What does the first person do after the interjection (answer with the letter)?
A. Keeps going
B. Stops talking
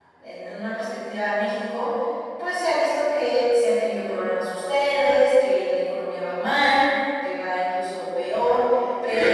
B